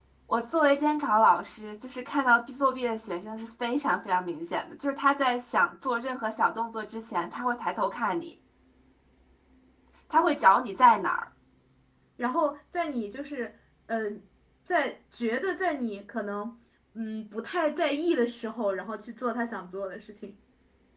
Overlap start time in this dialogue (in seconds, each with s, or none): none